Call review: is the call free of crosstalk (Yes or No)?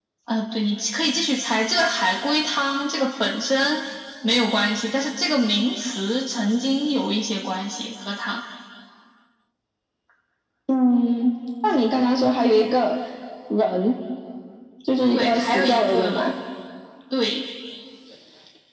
No